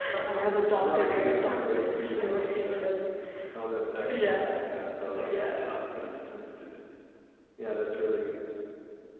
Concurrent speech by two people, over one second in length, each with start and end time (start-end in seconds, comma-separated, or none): 0.8-2.9